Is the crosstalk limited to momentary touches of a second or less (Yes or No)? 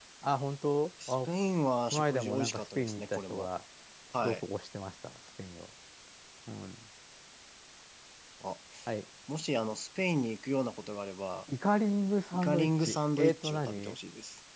No